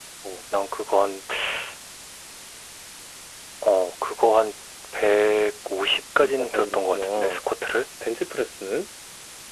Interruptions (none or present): present